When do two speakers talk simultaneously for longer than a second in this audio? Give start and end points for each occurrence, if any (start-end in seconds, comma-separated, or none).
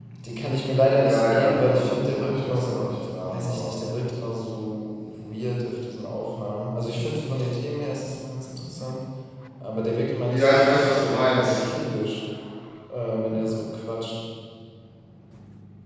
0.9-2.8, 10.3-11.6